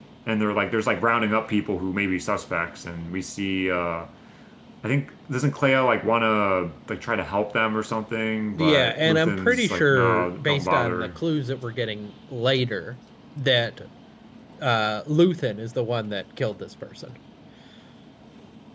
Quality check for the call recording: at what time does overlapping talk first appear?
8.5 s

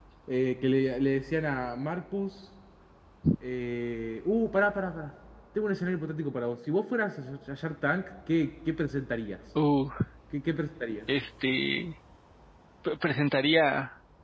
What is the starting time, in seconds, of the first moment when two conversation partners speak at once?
none

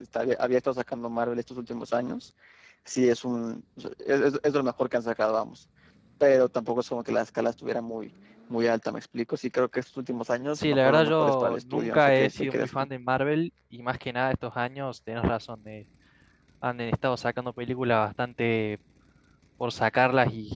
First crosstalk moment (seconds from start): 10.6 s

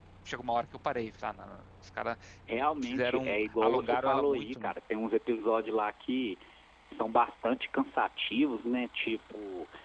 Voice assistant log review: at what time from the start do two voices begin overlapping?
2.8 s

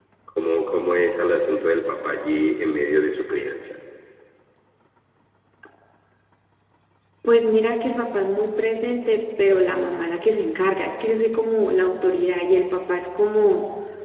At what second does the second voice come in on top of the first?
none

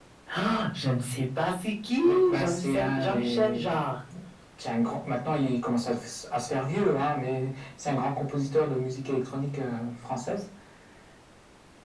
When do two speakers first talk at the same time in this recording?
2.0 s

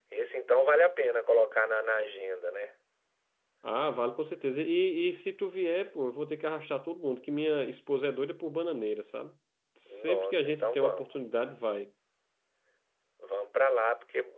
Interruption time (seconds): 9.9 s

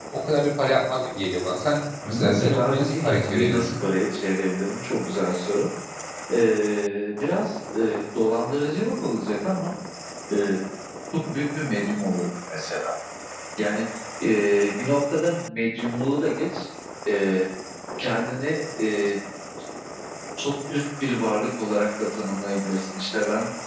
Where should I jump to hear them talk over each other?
2.1 s

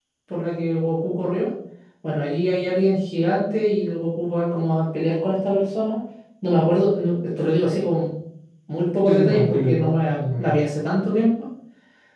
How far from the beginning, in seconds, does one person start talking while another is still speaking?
9.1 s

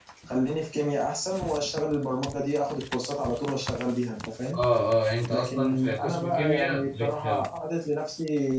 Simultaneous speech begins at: 5.3 s

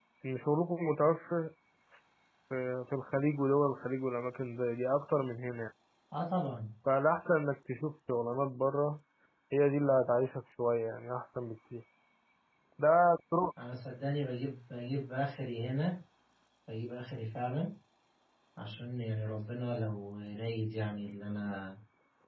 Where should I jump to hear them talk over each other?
none

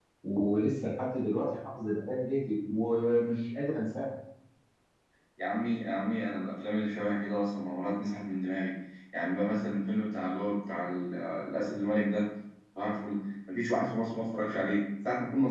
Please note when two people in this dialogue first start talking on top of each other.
none

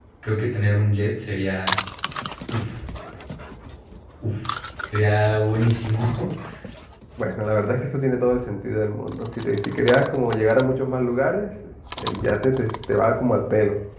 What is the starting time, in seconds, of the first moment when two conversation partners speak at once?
none

